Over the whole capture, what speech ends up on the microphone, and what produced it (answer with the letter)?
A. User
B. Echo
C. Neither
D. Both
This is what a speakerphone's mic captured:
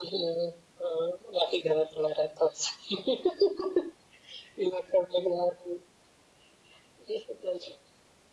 B